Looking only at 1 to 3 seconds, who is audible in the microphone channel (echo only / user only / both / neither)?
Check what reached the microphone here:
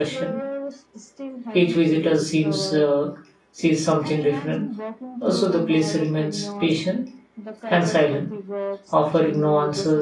both